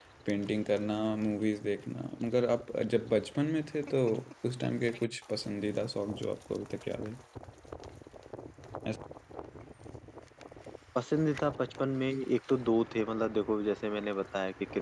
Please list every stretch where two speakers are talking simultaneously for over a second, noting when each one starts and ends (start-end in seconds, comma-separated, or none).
none